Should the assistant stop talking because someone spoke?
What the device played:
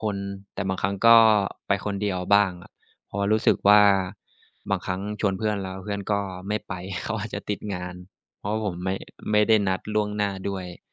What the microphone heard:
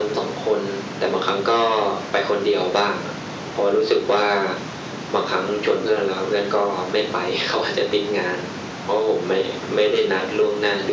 No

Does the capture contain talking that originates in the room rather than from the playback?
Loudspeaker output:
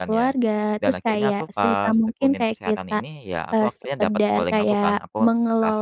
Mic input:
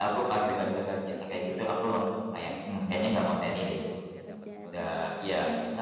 Yes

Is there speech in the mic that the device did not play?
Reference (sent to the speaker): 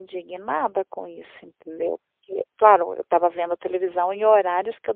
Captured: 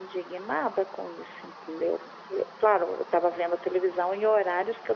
No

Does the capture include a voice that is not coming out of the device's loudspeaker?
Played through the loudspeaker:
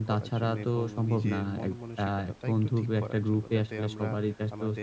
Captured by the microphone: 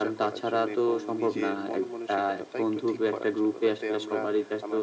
No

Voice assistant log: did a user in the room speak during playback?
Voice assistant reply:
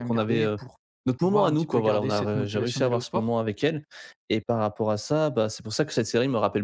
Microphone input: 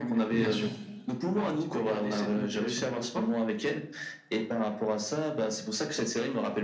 Yes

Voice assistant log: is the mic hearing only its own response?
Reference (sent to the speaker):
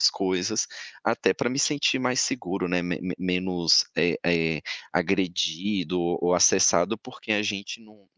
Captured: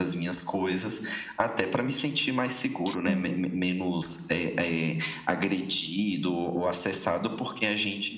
No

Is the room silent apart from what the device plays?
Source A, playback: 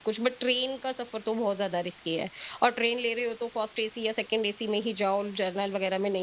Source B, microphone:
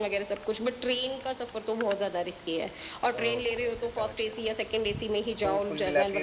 No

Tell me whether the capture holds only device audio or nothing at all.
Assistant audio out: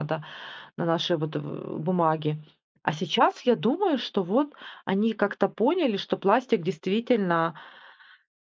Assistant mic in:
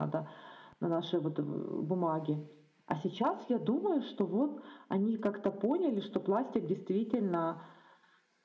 Yes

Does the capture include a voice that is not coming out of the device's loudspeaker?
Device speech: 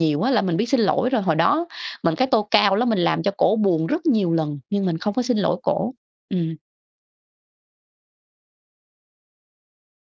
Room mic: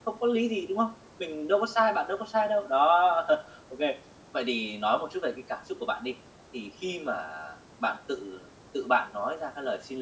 Yes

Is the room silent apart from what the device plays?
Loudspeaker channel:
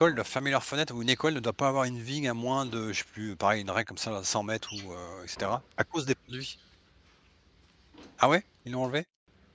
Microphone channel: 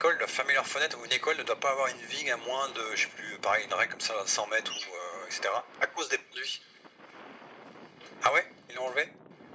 Yes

